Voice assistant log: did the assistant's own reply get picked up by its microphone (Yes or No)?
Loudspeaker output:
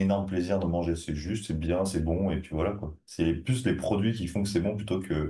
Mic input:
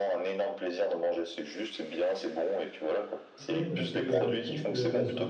Yes